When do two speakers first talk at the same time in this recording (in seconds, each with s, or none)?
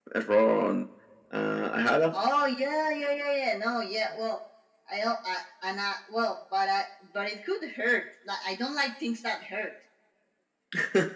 none